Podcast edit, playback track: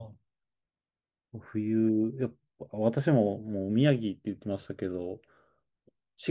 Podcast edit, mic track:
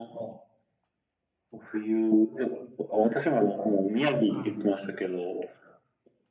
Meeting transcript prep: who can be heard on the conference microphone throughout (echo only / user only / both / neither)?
both